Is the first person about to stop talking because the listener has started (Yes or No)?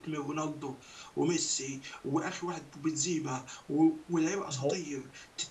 No